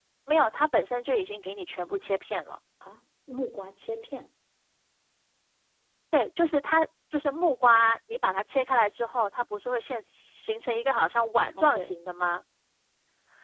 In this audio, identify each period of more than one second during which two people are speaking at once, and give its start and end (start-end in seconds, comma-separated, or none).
none